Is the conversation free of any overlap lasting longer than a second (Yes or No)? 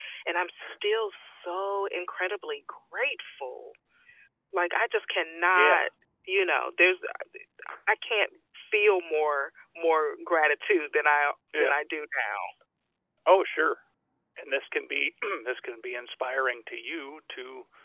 Yes